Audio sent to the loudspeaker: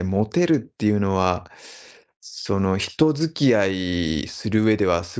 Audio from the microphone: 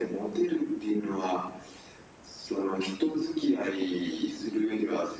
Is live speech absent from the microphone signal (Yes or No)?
Yes